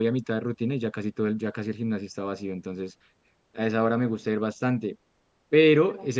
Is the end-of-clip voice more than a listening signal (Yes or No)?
No